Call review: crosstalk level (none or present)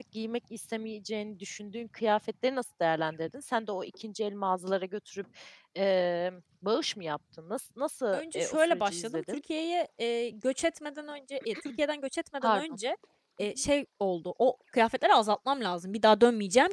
present